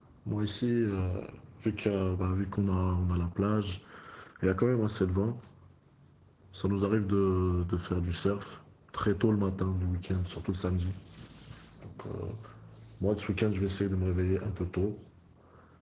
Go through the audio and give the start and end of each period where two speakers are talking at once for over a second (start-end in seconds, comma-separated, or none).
none